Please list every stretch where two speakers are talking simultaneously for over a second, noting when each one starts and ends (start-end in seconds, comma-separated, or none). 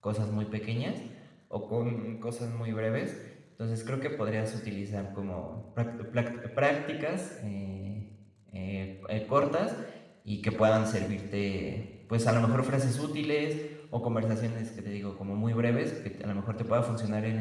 none